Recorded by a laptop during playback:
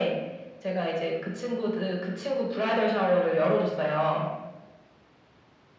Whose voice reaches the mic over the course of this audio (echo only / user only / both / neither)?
echo only